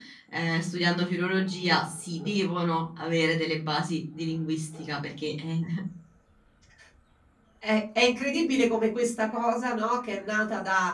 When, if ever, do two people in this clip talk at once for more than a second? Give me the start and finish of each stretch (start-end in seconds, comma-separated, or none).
none